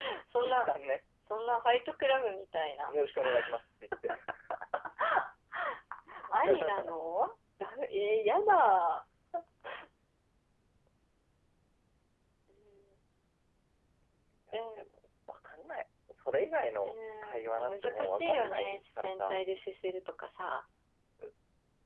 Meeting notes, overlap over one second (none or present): present